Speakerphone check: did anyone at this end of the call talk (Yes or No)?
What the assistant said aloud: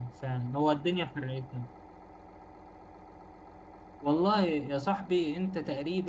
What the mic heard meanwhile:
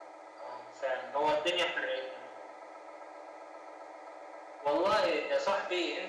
No